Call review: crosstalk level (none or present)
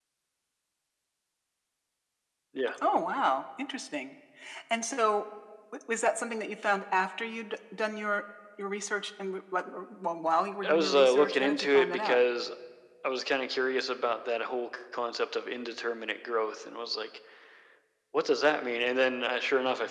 present